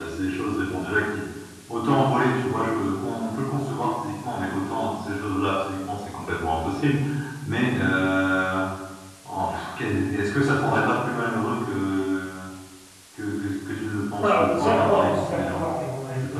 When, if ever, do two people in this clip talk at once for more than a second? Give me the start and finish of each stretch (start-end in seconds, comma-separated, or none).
14.2-15.6